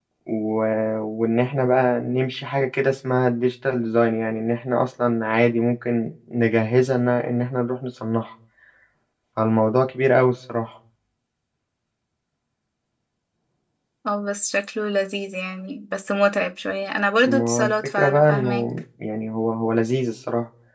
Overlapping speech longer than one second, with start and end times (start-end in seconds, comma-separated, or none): 17.2-18.6